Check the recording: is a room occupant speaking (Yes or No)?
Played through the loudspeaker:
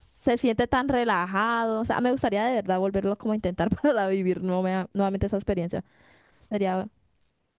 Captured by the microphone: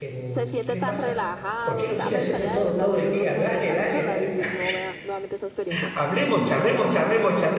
Yes